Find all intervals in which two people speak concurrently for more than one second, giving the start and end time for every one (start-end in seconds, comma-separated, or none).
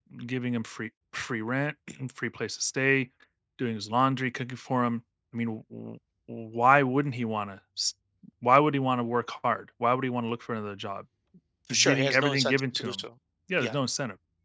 11.7-13.0